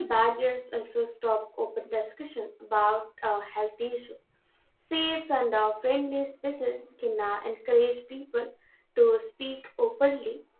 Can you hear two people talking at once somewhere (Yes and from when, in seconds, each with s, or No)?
No